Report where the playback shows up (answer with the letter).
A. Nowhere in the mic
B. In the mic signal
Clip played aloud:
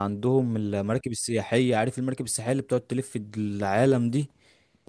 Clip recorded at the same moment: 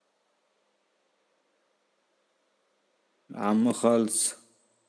A